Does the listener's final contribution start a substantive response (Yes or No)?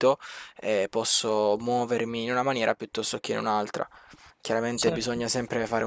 No